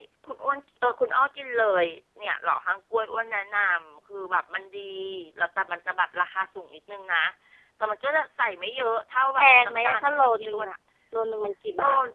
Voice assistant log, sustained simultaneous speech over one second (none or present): present